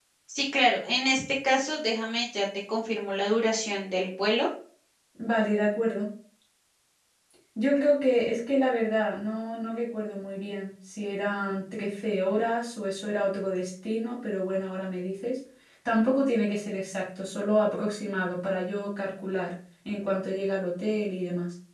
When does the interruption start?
none

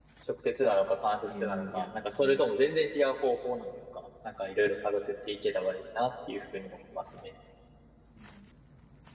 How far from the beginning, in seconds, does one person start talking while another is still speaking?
1.2 s

